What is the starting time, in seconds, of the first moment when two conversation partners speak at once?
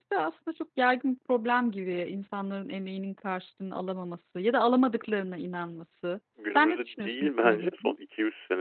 6.4 s

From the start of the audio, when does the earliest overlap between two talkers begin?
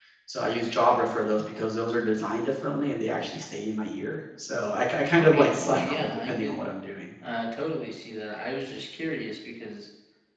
5.1 s

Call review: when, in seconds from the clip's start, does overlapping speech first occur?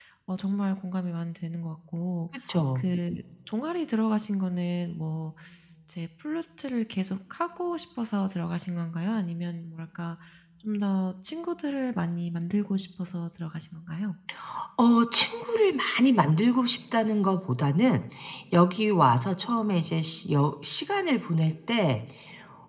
none

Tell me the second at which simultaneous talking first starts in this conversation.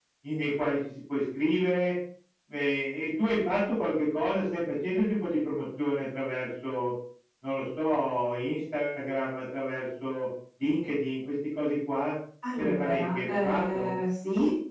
12.6 s

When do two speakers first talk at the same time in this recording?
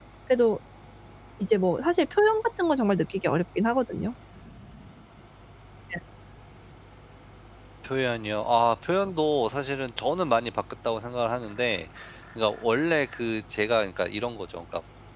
none

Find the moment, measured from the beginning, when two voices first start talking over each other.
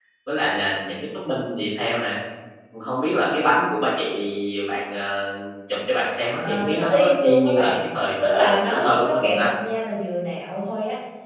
6.4 s

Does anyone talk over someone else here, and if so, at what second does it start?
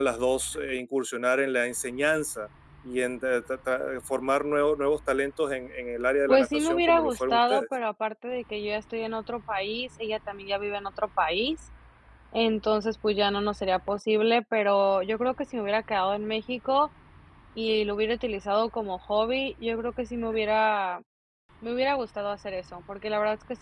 6.3 s

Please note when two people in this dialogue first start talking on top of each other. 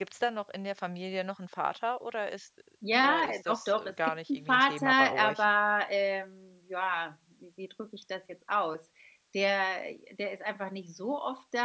2.8 s

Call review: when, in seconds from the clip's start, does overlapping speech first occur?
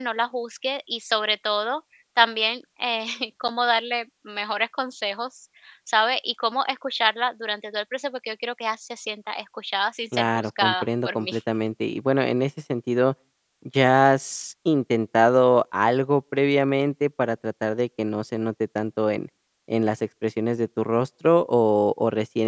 10.1 s

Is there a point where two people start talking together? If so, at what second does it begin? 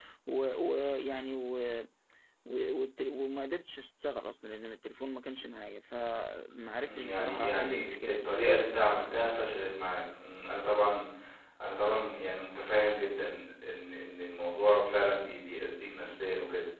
6.8 s

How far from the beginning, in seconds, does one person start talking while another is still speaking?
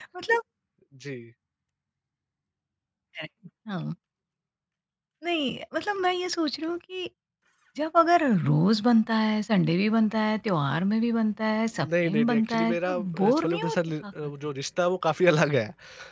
11.8 s

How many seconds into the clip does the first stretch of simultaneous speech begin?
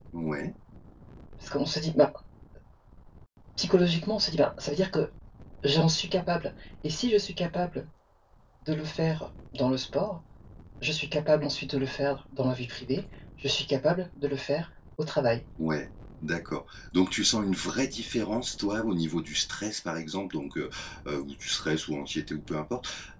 none

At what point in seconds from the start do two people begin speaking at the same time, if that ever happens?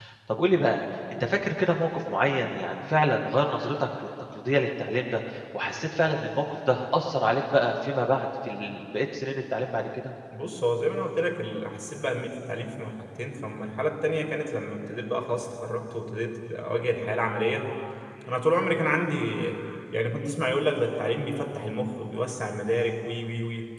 none

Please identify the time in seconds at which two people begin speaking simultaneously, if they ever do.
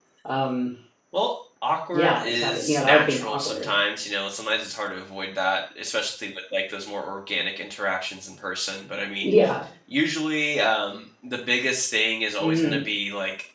1.9 s

